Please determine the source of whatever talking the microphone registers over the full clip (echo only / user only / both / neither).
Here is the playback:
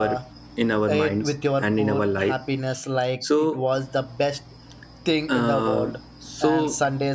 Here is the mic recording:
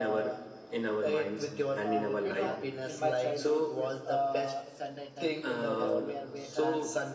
both